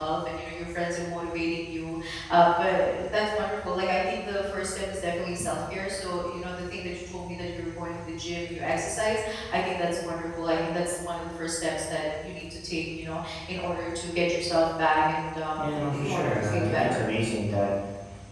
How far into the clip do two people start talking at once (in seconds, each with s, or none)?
15.6 s